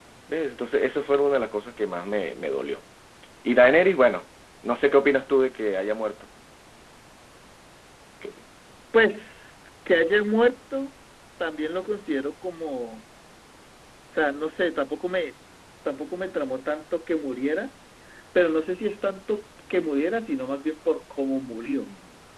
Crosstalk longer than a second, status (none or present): none